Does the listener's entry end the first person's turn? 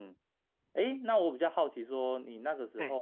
No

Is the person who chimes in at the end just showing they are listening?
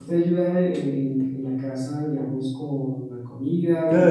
No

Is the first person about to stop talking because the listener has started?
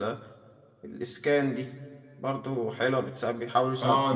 Yes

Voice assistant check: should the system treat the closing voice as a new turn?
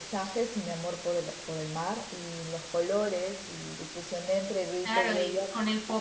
Yes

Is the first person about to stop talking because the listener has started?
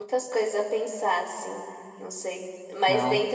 No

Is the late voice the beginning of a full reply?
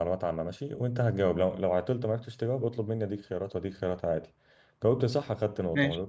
No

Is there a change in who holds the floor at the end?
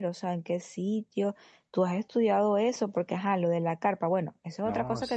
Yes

